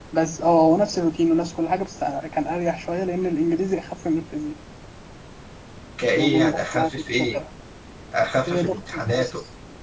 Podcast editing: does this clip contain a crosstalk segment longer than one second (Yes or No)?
Yes